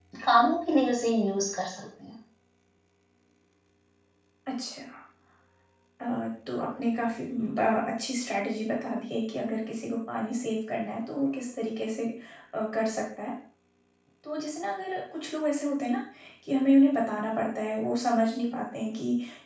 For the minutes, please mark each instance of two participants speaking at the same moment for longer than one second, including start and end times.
none

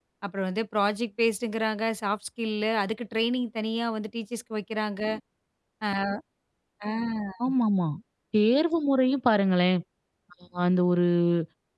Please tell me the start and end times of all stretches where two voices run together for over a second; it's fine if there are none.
none

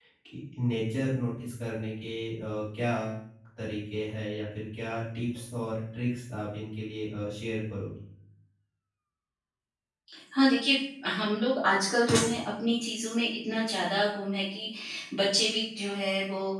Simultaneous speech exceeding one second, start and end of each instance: none

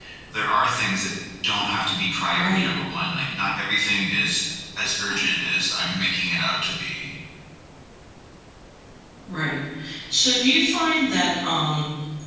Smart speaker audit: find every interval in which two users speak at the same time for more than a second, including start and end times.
none

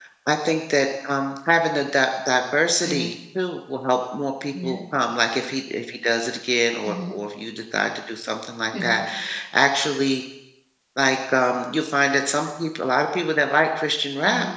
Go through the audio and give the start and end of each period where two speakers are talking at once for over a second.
none

